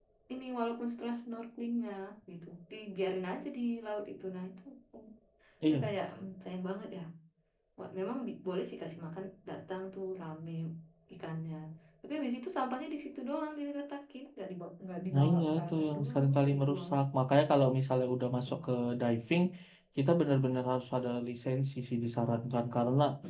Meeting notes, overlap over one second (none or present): present